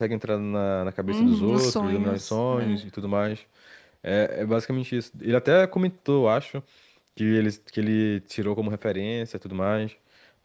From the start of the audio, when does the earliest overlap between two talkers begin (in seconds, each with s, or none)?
1.1 s